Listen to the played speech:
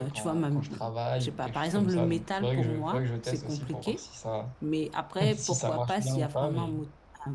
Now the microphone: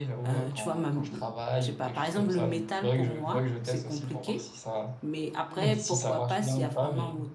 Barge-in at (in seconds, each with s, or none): 5.5 s